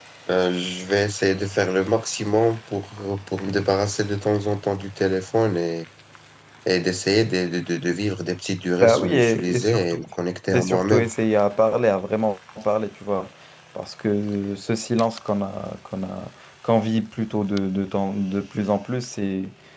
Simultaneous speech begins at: 8.8 s

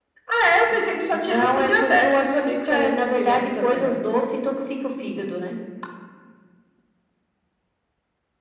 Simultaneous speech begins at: 1.2 s

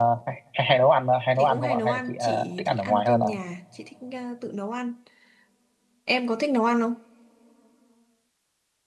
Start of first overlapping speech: 1.4 s

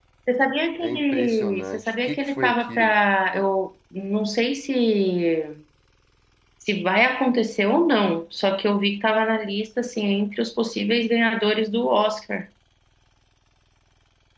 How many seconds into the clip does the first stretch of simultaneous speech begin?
0.8 s

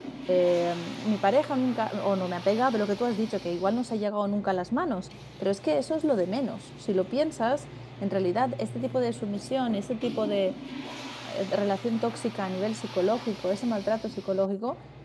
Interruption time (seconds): none

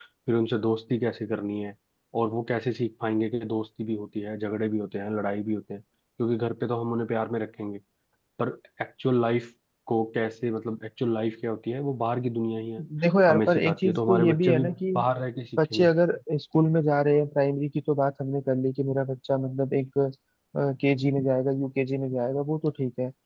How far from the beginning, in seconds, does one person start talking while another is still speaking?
13.3 s

